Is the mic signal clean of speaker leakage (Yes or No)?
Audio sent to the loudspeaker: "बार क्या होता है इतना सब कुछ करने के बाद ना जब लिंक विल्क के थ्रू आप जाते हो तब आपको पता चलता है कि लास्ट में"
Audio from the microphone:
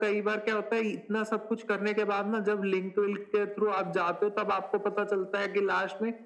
No